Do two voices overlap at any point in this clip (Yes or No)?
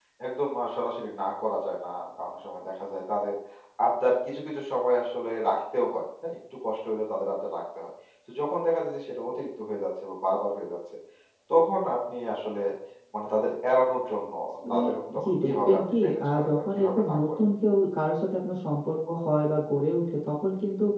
Yes